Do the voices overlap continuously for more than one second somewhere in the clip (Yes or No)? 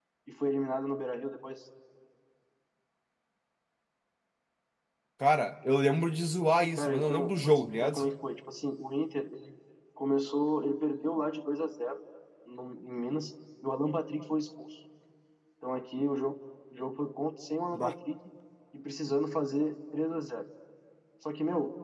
Yes